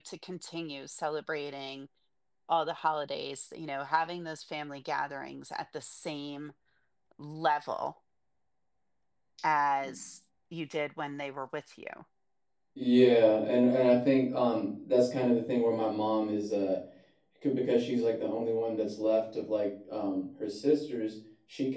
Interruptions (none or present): none